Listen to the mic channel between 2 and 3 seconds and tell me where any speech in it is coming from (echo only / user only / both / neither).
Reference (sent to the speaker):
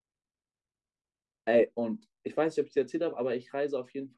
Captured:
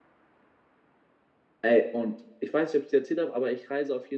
echo only